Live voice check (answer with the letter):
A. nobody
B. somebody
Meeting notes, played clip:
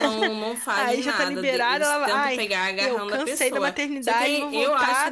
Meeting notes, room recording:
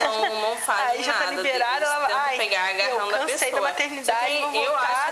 A